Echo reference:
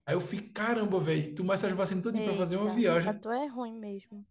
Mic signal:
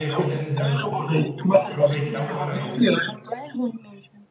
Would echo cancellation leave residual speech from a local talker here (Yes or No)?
Yes